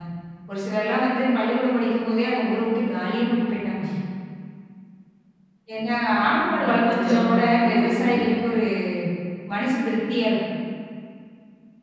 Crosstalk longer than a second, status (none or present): present